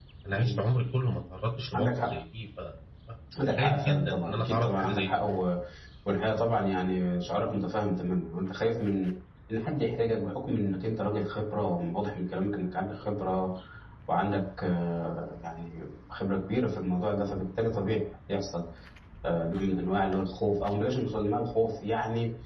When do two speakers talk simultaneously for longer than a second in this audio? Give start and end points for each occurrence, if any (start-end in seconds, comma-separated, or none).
3.6-5.2